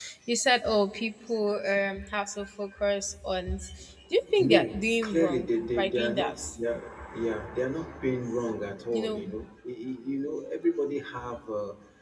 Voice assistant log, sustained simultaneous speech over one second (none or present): present